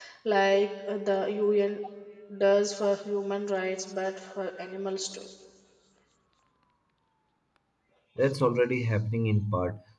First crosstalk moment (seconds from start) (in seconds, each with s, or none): none